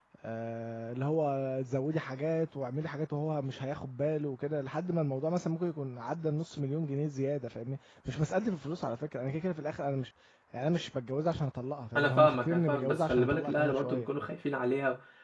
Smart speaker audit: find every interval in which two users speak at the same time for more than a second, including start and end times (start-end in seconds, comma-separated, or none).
11.9-14.1